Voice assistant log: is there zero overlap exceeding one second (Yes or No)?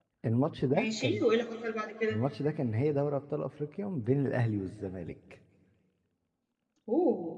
Yes